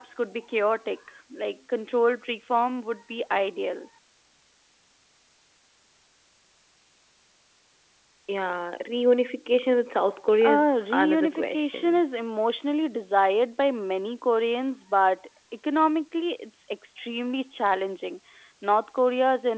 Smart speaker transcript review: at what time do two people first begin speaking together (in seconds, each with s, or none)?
10.4 s